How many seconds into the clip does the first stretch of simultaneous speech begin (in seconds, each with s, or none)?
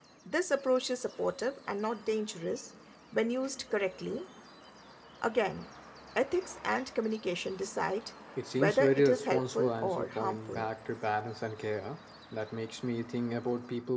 8.5 s